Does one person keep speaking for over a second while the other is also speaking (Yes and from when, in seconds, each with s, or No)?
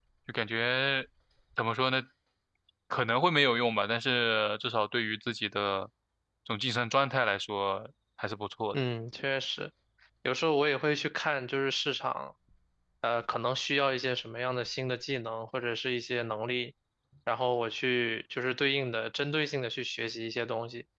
No